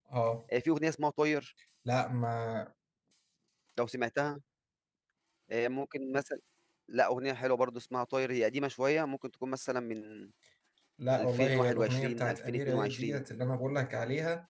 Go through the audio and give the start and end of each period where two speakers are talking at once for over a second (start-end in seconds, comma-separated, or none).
11.2-13.2